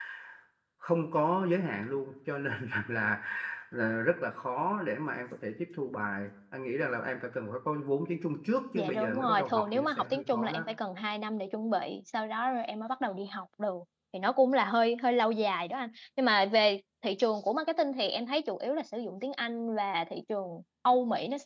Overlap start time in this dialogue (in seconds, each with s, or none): 8.7 s